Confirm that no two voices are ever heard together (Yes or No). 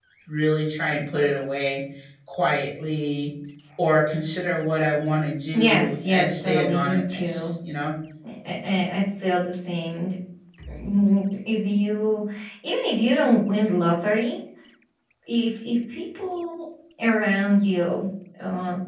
No